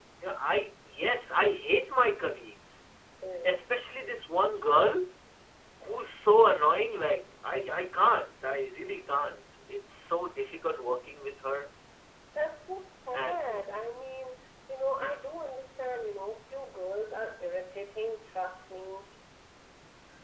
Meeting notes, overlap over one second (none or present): none